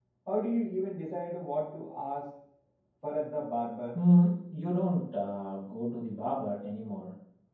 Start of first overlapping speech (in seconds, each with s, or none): none